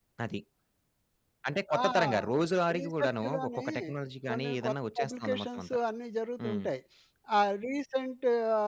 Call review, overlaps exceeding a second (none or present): present